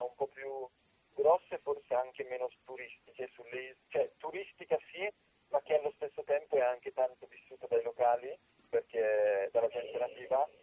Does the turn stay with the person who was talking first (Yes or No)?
Yes